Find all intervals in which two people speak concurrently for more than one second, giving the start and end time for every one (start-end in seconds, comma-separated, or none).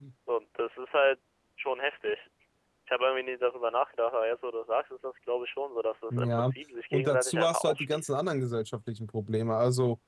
6.9-8.2